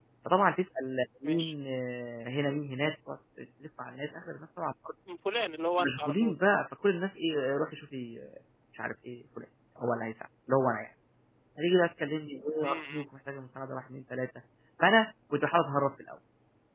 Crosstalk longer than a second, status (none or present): none